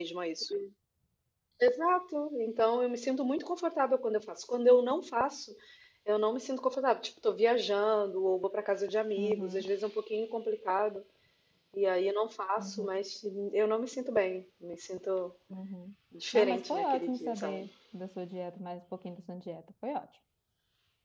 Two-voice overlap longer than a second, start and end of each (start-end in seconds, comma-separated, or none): 16.3-17.7